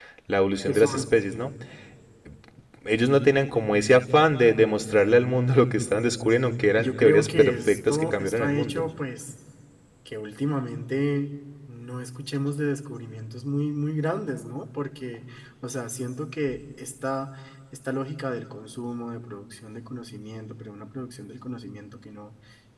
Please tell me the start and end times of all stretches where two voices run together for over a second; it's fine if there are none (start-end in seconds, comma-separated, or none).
6.8-8.8